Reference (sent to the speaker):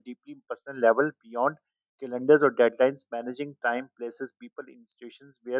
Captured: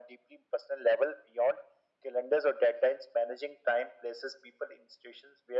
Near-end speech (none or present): none